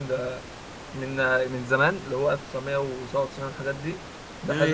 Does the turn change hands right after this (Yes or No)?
No